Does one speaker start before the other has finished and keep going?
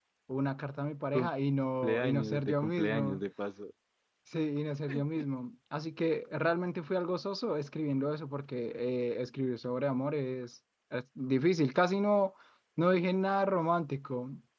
Yes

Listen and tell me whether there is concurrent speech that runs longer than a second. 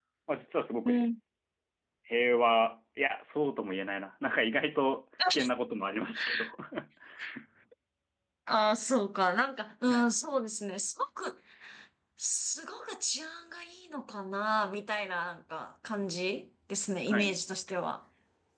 No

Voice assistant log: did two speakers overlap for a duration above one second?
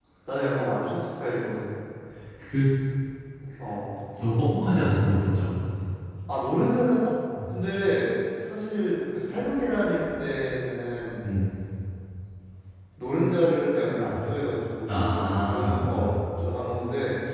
Yes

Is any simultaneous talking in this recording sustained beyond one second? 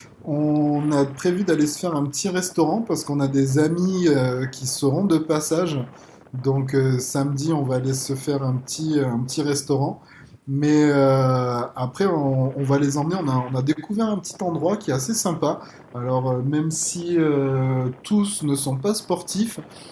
No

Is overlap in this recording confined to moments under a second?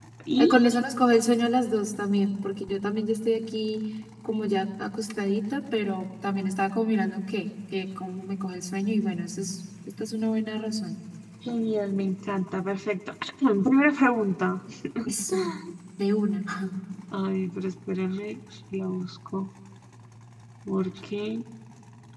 Yes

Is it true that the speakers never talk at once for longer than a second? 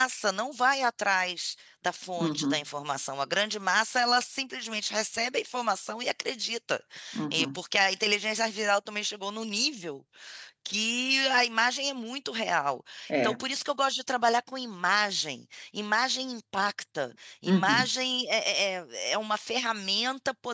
Yes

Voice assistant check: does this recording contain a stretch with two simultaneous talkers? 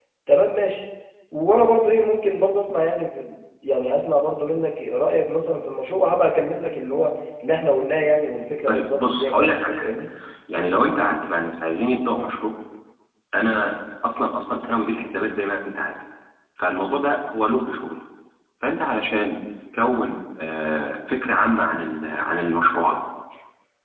Yes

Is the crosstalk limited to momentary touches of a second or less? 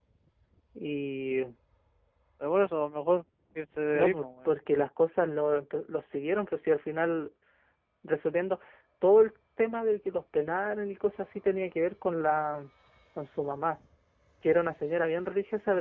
Yes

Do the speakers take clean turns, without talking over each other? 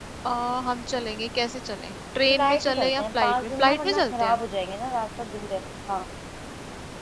No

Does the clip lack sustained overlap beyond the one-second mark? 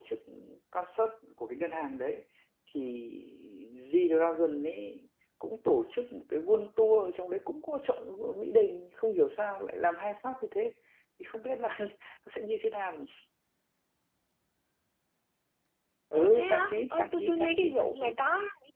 No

